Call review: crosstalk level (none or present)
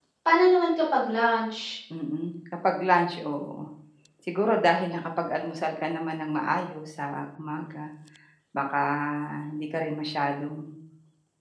none